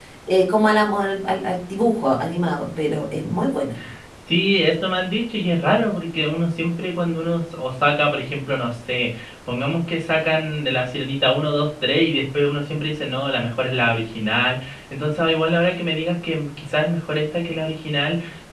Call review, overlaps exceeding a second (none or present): none